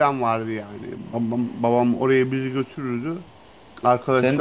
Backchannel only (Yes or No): No